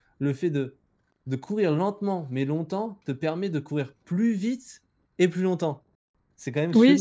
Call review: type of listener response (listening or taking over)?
taking over